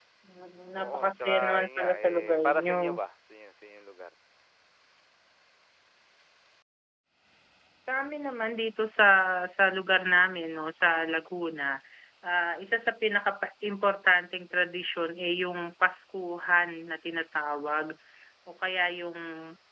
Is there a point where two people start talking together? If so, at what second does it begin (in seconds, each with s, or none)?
0.8 s